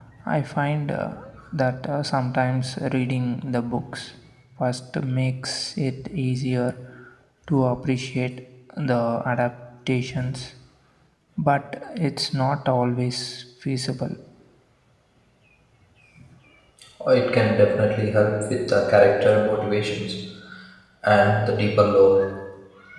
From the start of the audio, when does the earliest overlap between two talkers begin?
none

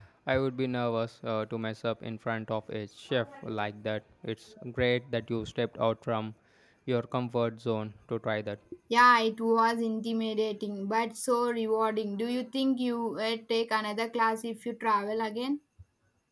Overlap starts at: none

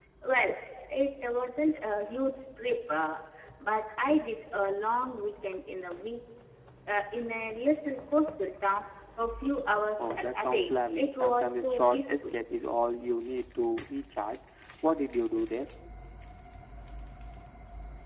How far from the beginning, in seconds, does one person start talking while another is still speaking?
10.0 s

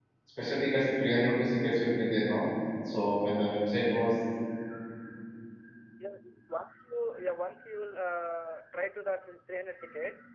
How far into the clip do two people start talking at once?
none

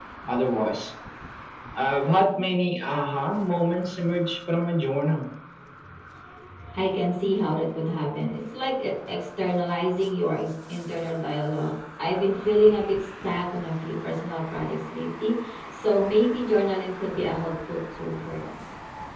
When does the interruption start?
none

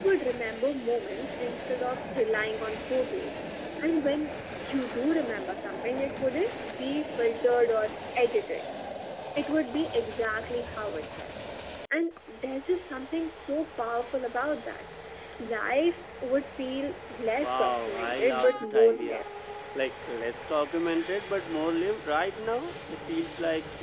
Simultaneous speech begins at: 17.4 s

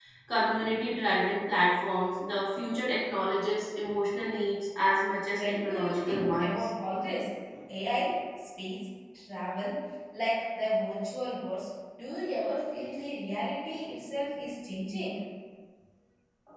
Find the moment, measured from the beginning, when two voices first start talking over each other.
5.3 s

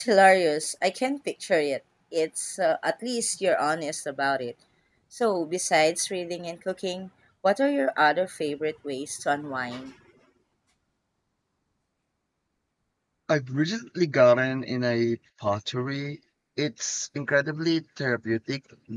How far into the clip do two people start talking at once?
none

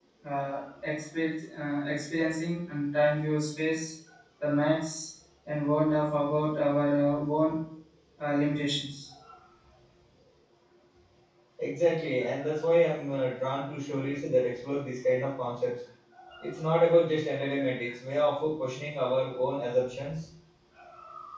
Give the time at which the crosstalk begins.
none

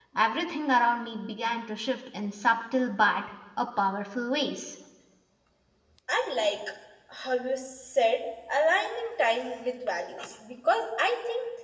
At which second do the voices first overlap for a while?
none

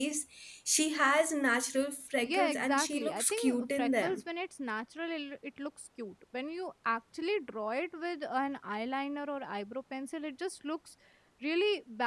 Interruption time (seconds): 2.2 s

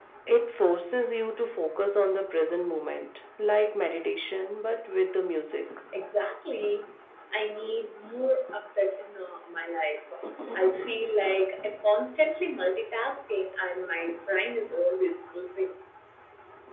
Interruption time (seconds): none

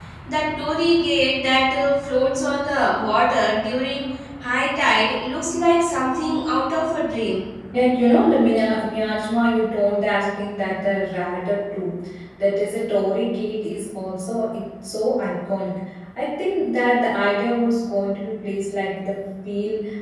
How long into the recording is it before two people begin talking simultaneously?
none

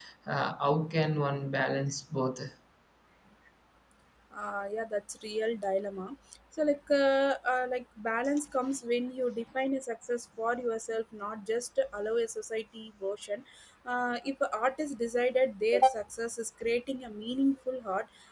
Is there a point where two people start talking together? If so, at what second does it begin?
none

